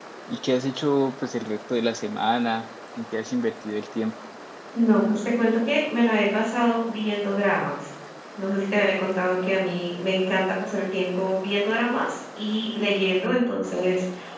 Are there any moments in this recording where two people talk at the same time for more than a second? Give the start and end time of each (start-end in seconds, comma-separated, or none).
none